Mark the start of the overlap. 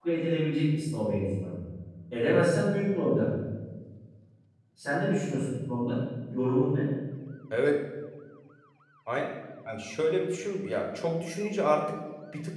none

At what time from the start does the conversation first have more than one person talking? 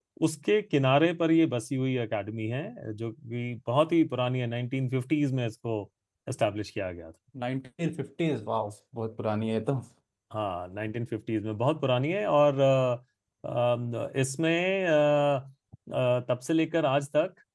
none

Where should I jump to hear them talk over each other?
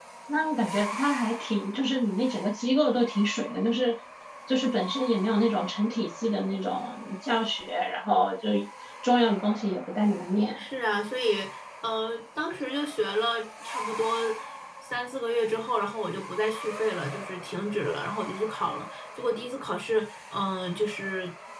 none

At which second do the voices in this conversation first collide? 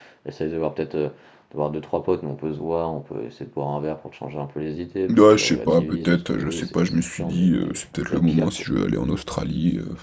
5.1 s

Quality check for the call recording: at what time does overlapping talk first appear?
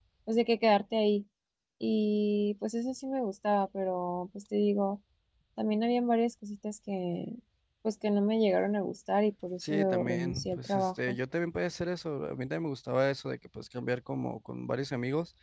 9.6 s

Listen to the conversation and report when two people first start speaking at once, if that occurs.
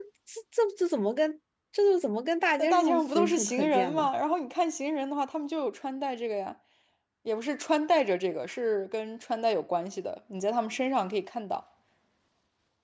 2.6 s

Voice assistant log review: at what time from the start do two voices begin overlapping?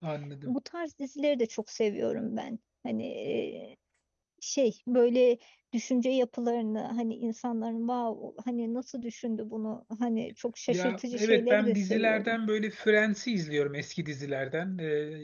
10.7 s

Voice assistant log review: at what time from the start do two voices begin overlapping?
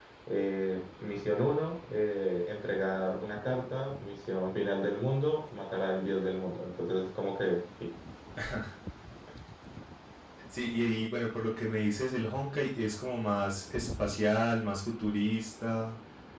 none

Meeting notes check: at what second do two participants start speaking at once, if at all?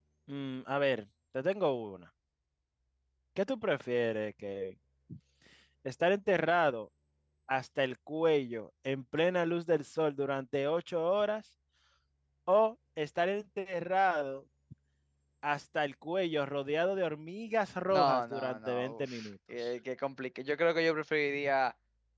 17.9 s

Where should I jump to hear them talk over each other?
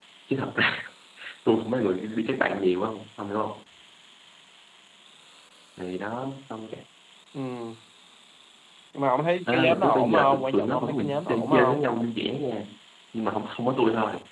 9.5 s

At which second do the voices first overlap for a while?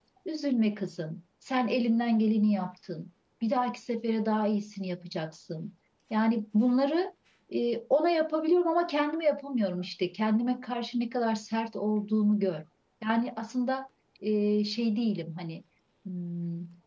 none

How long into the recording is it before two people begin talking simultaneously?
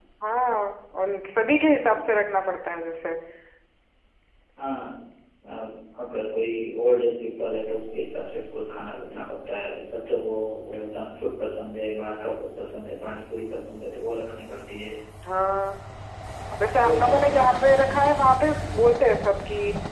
16.7 s

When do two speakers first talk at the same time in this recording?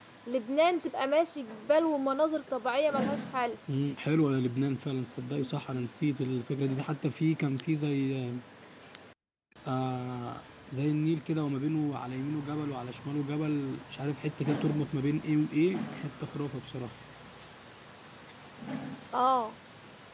none

